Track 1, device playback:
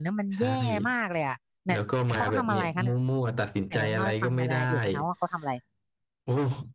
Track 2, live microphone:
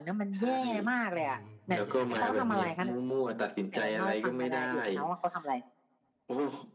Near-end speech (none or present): present